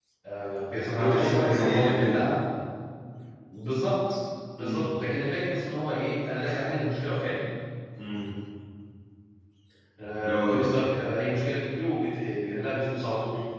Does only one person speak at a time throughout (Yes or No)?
No